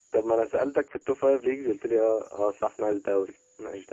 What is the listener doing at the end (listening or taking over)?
taking over